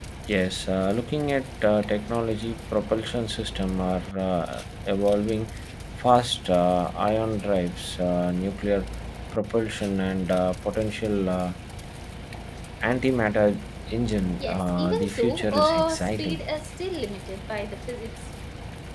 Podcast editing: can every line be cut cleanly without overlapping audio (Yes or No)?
No